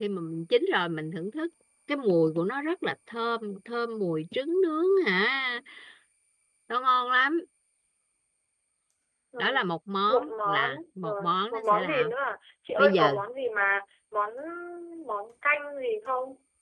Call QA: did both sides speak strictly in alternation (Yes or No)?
No